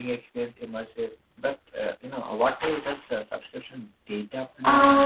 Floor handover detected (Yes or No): Yes